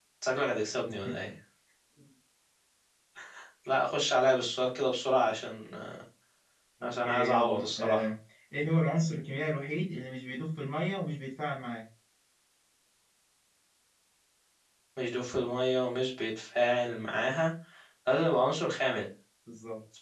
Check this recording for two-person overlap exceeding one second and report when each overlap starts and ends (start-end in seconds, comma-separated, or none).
6.8-8.1